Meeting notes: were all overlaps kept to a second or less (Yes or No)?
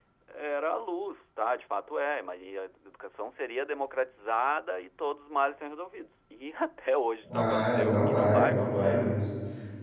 No